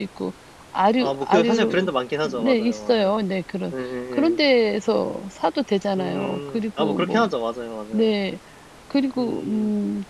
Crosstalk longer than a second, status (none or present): present